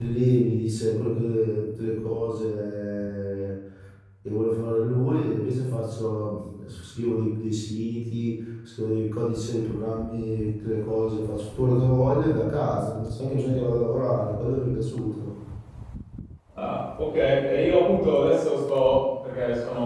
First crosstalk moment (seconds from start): none

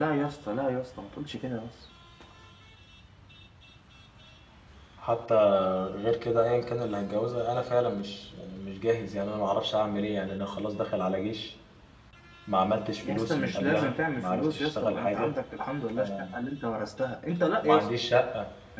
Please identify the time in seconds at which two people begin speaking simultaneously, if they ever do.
13.0 s

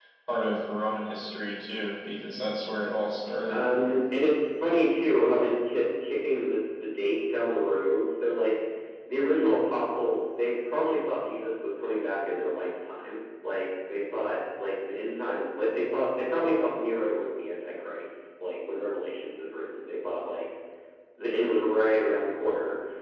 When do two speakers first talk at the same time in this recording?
none

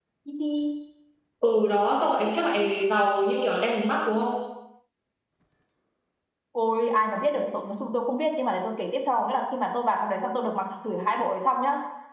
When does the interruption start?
none

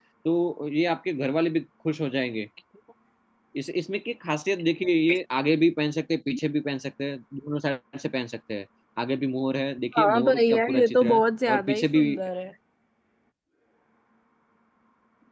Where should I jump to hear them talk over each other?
9.9 s

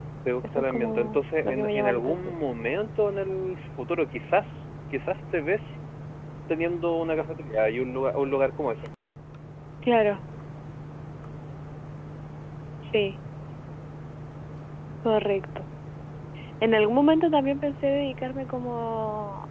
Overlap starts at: 0.6 s

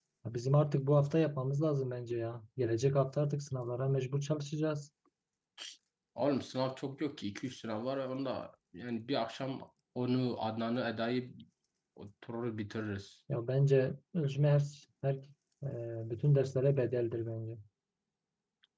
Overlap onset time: none

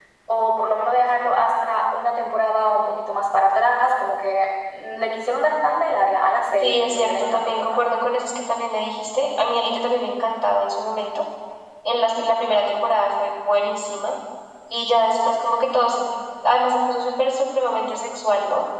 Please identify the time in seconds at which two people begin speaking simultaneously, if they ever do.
6.6 s

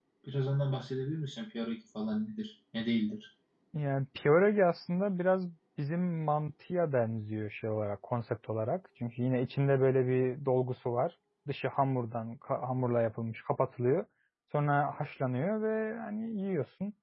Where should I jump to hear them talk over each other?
none

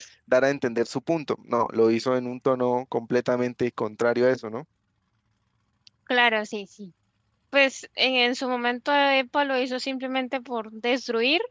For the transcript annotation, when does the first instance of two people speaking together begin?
none

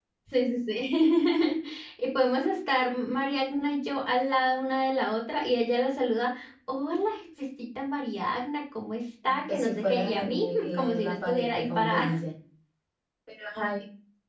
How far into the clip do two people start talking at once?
9.2 s

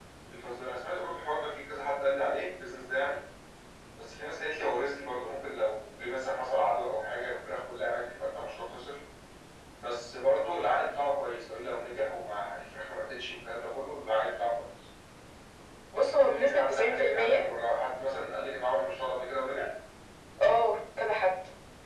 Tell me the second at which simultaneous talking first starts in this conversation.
15.9 s

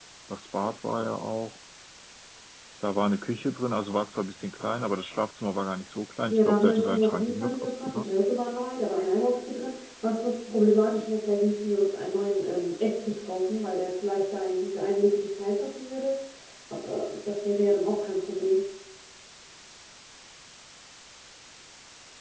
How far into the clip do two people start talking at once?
6.3 s

